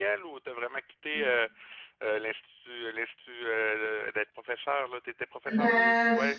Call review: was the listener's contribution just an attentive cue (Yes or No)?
No